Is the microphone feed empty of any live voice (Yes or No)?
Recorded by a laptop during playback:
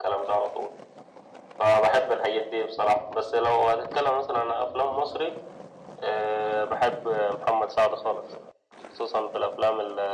Yes